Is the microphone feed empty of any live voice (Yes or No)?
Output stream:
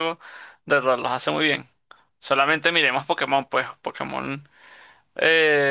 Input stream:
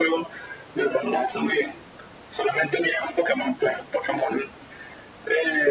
Yes